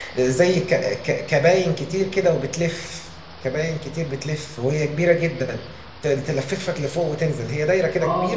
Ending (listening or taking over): taking over